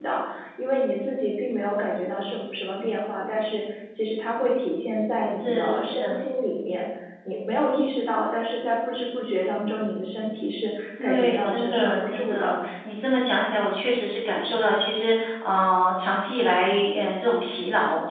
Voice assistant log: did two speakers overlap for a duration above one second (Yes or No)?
Yes